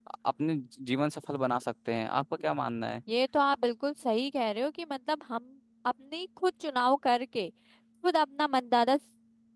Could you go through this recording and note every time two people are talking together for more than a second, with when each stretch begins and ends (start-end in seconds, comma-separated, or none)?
none